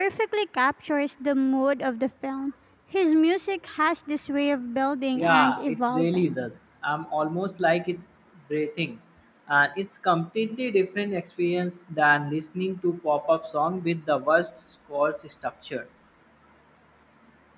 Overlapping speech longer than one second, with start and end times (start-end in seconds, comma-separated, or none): 5.2-6.4